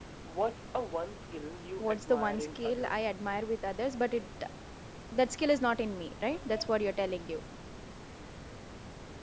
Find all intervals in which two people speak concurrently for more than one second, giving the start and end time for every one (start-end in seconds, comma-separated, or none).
1.8-3.1